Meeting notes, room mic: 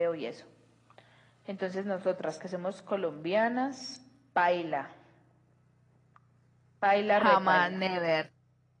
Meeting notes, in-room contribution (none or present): present